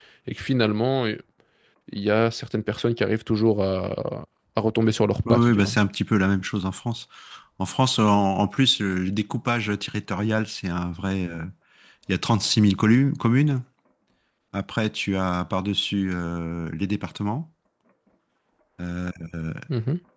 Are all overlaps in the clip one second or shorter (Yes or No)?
Yes